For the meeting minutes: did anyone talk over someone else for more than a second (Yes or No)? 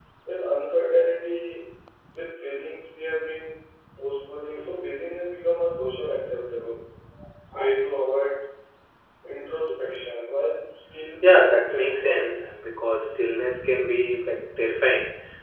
Yes